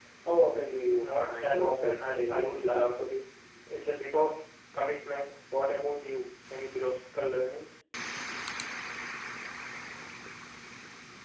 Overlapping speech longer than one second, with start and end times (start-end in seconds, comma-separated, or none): 1.0-2.8